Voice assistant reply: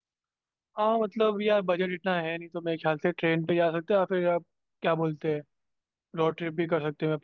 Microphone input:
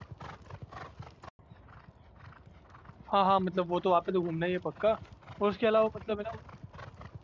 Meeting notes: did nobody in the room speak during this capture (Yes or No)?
No